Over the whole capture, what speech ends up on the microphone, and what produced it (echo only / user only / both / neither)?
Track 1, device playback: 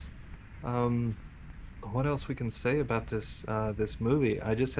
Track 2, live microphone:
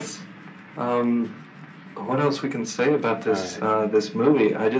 both